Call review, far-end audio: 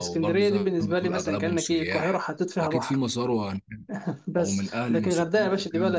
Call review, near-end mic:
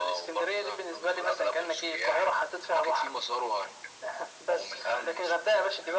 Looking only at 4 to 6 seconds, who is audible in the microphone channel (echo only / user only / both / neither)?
echo only